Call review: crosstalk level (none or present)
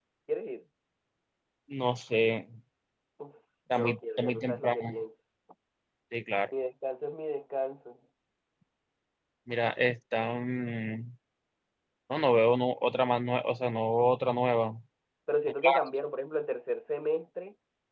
present